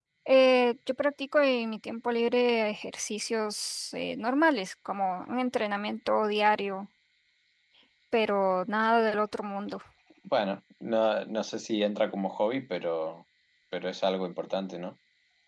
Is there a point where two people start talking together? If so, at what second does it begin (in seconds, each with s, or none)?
none